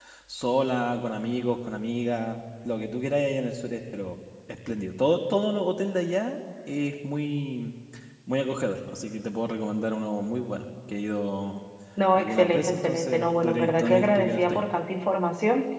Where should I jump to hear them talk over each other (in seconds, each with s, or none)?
12.2 s